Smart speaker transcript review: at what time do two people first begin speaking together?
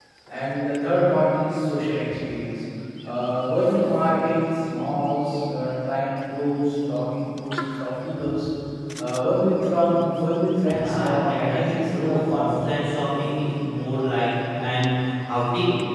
10.7 s

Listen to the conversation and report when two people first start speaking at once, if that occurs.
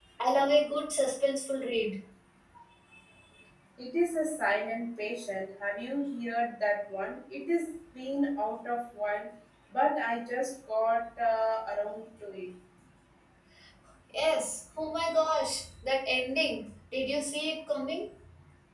none

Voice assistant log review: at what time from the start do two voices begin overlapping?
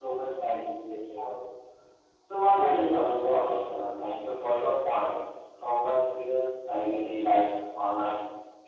2.5 s

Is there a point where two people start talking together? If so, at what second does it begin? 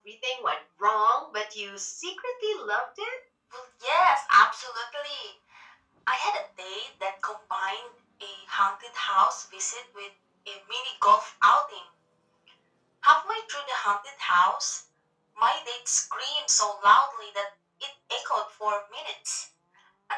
none

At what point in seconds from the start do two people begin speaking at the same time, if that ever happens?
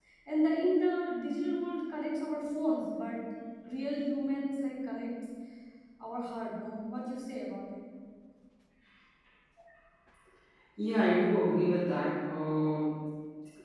none

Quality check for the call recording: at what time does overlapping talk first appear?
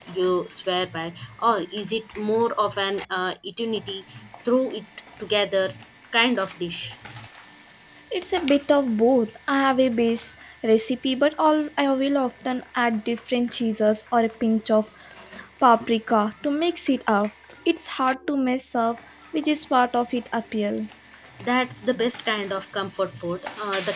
none

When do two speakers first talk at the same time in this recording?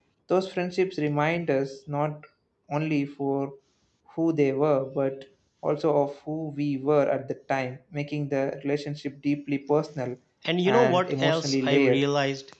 10.7 s

